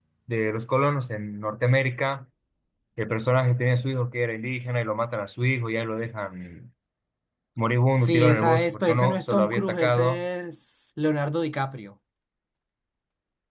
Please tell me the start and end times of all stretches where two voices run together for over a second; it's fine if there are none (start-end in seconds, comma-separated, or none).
8.0-10.2